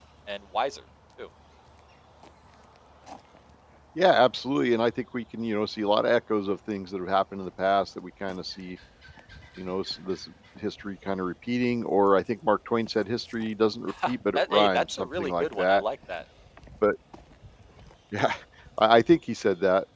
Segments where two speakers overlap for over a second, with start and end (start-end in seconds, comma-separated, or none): 13.9-15.8